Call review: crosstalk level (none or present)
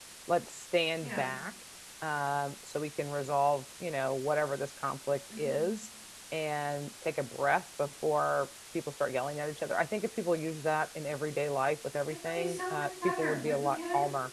present